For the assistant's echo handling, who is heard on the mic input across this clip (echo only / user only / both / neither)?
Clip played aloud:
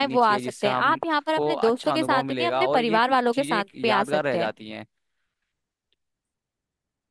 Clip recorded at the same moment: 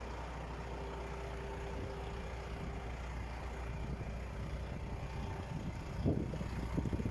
neither